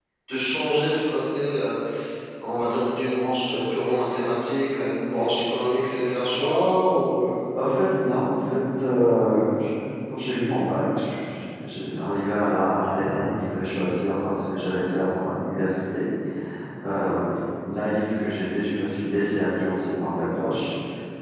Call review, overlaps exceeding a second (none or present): none